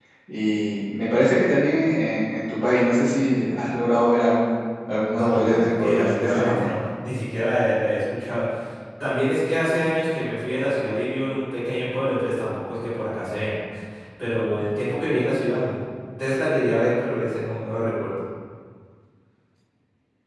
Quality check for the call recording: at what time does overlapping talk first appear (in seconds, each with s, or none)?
5.1 s